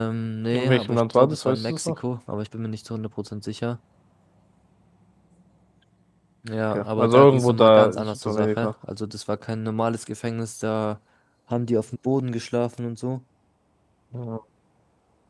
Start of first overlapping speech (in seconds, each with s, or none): 0.5 s